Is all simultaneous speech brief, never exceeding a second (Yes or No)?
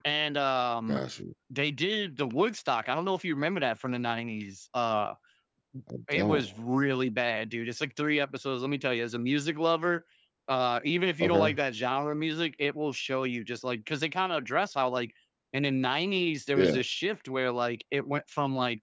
Yes